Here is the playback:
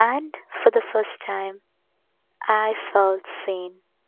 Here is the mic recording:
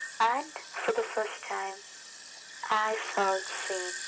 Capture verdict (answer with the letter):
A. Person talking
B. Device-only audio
B